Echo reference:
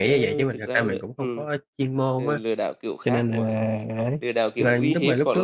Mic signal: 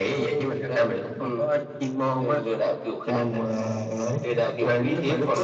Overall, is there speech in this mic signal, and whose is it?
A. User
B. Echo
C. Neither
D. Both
B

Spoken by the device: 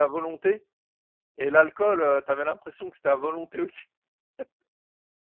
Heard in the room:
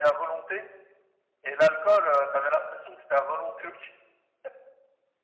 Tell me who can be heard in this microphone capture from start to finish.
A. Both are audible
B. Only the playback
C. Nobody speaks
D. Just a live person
B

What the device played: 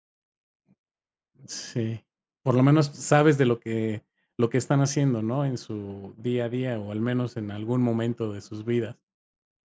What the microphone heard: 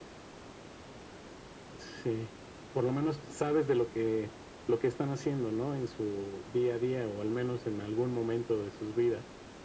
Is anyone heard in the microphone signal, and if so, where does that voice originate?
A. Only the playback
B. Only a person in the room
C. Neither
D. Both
A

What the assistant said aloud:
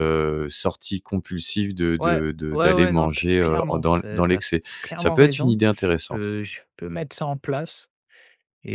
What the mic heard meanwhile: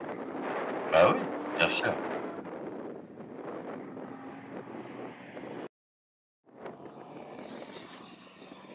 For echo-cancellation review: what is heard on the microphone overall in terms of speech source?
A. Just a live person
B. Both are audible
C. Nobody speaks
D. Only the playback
A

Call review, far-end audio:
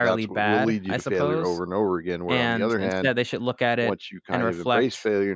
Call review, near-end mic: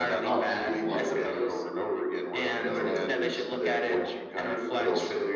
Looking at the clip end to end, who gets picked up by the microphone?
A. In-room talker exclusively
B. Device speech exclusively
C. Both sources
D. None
C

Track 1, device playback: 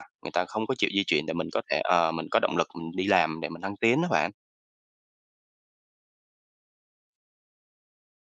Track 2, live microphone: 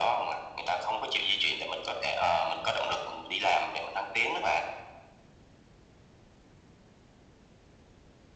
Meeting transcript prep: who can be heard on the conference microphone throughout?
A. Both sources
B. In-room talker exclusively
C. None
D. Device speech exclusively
D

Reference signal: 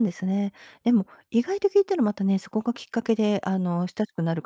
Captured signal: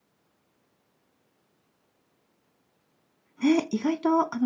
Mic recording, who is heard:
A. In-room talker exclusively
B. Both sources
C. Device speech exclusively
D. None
A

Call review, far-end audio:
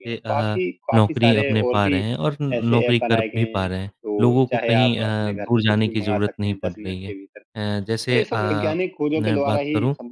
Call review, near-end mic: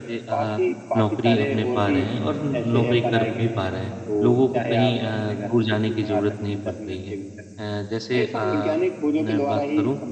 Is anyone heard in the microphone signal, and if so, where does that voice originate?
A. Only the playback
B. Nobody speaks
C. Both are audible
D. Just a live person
A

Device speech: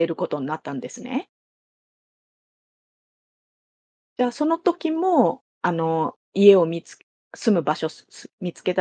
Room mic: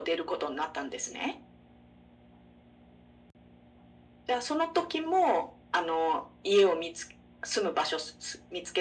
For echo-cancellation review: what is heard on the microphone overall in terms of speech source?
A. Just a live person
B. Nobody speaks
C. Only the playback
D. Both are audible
C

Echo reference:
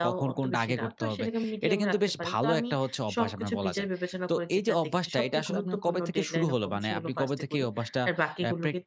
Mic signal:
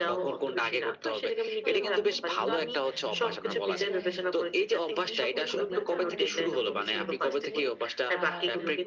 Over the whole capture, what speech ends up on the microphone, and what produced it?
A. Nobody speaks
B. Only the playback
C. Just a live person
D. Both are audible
D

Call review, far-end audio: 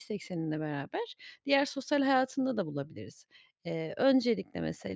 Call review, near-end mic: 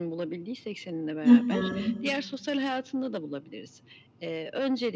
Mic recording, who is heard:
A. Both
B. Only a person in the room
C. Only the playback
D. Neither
A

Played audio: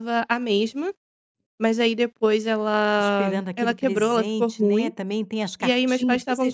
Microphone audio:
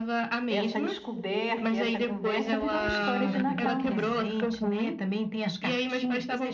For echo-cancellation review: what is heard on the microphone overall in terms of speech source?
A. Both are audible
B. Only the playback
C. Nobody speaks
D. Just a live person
A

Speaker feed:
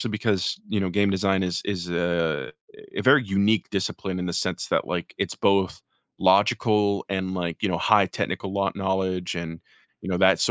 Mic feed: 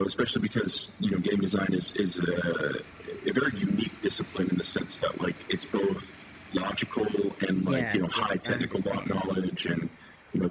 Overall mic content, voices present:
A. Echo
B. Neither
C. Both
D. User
C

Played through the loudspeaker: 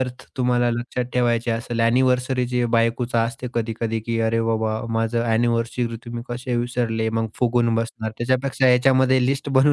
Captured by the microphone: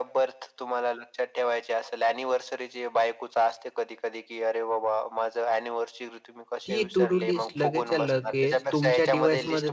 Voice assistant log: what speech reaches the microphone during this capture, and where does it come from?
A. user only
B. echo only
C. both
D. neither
C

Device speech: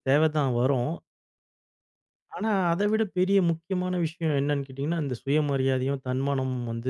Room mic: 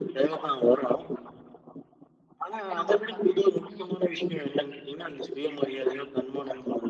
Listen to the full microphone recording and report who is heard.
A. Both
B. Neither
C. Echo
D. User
A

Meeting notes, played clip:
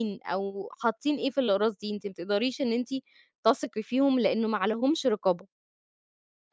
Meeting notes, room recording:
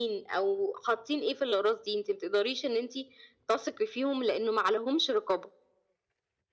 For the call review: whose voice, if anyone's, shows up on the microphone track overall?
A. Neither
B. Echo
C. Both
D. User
B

